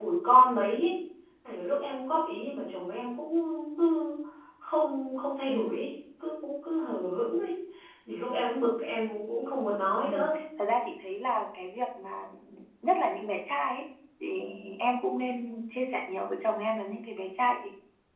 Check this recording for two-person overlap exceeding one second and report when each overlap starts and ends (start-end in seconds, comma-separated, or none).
none